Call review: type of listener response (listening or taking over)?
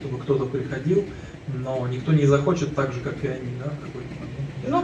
taking over